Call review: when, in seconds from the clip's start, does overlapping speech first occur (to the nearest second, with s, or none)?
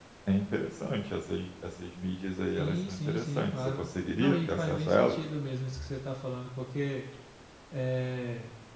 3 s